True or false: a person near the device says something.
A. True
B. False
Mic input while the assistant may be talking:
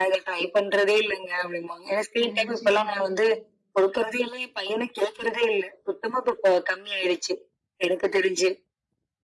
A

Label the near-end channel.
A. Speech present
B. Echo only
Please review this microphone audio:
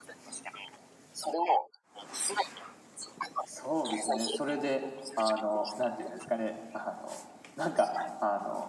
A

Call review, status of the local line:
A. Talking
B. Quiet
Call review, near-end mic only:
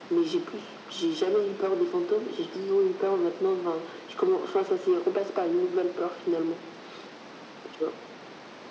B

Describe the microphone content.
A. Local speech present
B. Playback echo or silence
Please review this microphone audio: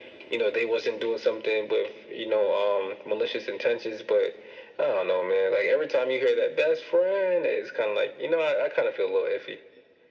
B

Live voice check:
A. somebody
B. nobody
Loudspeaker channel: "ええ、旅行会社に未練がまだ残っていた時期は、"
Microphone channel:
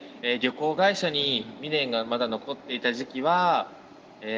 A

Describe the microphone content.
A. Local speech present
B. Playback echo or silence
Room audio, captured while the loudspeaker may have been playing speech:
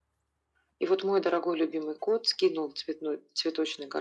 B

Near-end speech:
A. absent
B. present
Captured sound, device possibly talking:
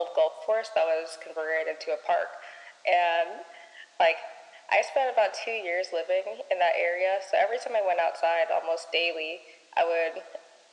A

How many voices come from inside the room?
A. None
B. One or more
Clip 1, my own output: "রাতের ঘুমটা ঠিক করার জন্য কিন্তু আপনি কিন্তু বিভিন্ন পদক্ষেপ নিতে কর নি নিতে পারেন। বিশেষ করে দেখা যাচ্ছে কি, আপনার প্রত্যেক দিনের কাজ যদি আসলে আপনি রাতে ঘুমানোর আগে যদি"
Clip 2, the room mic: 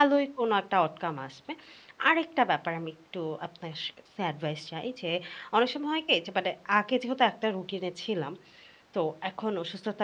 B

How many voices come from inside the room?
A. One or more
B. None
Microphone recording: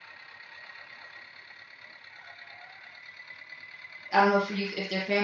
A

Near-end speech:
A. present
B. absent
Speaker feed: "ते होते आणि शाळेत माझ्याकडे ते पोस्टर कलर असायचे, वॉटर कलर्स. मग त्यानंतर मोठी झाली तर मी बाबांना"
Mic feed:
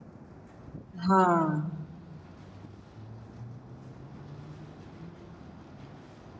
A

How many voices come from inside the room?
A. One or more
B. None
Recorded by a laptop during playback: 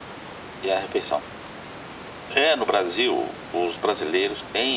B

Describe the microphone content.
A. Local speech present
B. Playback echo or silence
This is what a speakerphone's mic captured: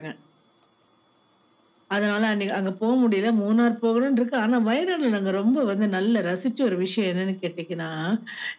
B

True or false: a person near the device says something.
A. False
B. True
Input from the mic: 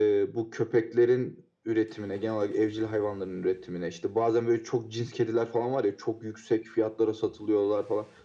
A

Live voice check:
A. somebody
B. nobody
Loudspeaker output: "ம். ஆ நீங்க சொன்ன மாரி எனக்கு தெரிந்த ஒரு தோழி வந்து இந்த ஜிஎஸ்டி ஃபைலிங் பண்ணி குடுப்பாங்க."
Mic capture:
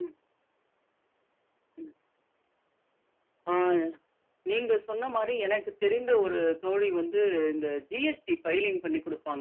B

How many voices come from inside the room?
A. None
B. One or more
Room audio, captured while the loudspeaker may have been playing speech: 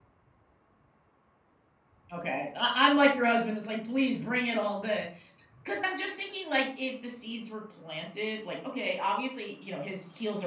B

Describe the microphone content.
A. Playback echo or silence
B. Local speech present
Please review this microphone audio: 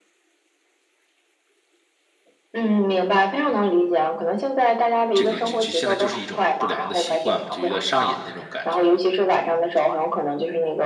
B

